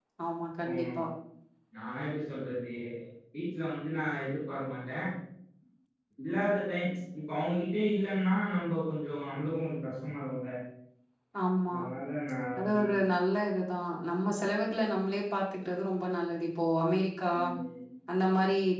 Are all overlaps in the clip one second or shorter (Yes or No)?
Yes